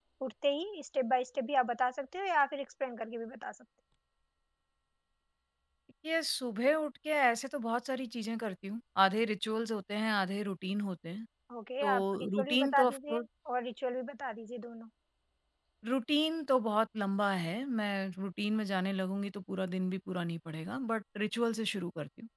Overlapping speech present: Yes, from 11.8 s

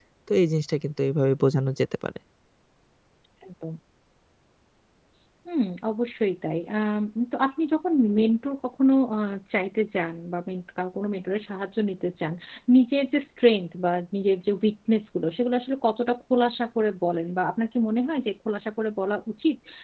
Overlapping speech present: No

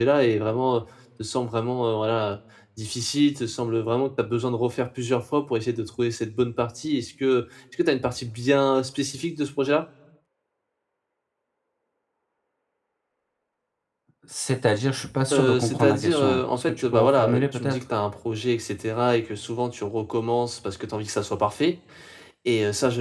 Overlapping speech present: Yes, from 15.3 s

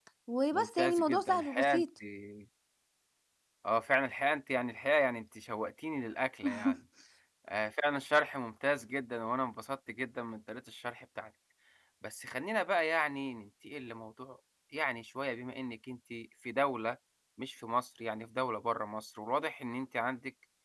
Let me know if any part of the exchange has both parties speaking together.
Yes, from 0.5 s

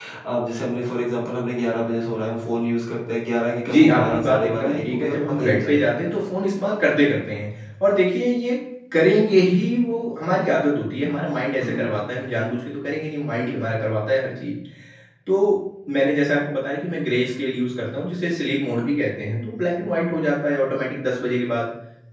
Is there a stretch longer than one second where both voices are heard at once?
Yes, from 3.7 s

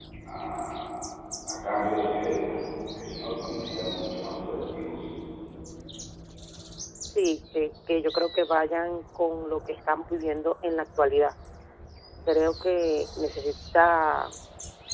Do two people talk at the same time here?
No

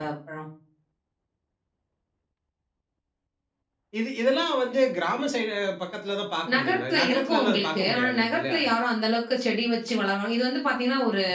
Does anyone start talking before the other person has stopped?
Yes, from 6.5 s

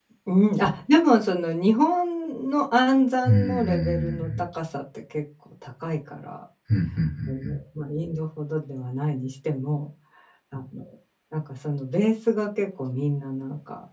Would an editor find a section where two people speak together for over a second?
Yes, from 3.2 s

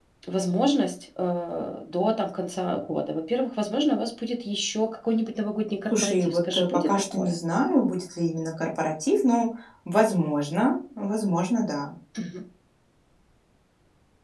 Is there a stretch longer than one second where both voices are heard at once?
Yes, from 5.9 s

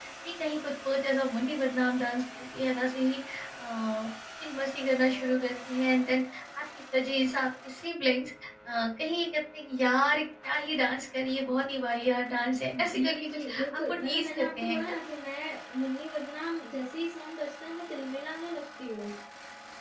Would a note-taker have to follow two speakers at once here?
Yes, from 12.7 s

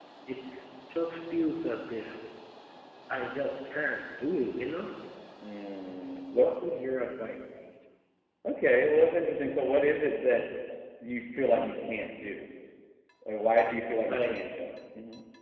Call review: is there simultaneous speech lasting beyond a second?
No

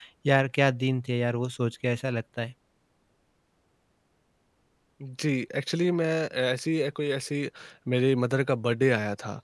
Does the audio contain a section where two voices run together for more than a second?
No

